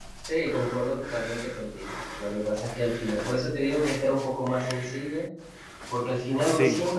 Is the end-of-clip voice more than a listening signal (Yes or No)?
No